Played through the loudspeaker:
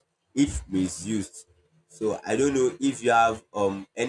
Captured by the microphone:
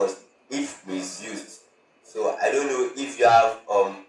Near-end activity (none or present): none